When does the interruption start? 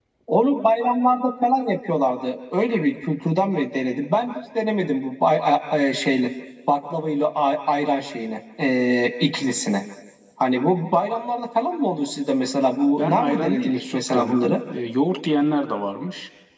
12.9 s

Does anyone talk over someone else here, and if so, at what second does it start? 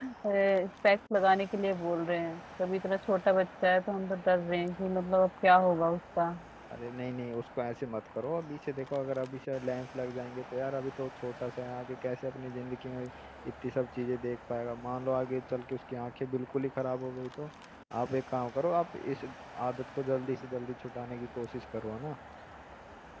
none

